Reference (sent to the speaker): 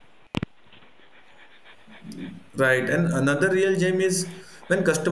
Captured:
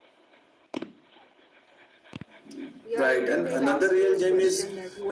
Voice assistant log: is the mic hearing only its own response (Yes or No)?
No